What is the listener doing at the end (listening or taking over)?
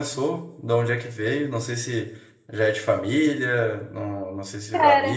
listening